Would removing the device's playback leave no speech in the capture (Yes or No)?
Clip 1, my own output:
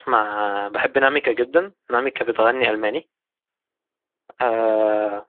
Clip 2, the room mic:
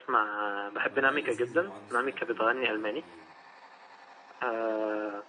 No